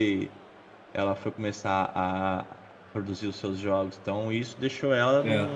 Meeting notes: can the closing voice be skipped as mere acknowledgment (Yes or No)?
Yes